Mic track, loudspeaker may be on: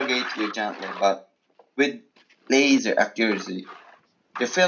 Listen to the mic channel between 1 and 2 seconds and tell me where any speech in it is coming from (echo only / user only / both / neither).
echo only